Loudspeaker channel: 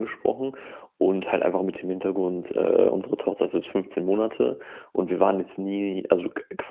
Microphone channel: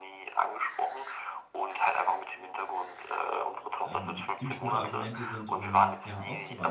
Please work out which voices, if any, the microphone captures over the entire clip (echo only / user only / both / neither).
both